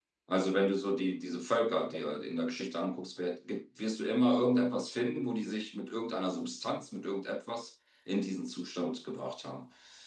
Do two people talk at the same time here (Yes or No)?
No